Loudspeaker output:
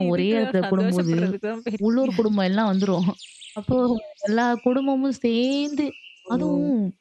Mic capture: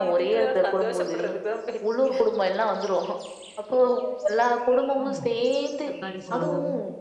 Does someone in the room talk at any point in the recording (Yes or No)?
Yes